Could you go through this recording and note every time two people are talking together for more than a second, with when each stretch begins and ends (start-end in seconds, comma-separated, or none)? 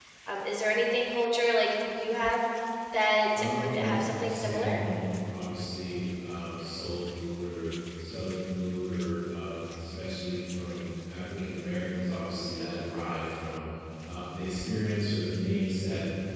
3.4-4.8